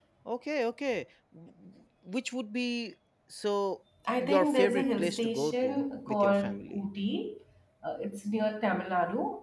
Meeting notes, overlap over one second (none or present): present